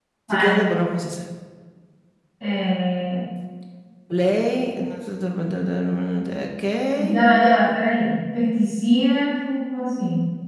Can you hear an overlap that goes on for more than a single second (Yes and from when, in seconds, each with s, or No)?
No